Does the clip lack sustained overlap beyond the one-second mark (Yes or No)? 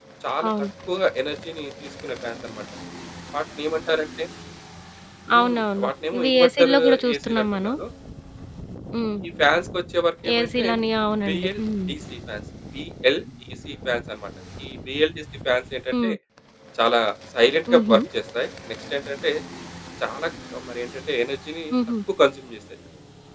No